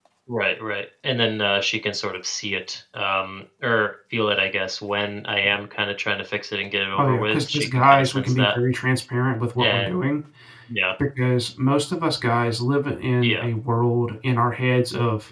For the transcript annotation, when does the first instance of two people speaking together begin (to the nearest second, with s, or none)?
7 s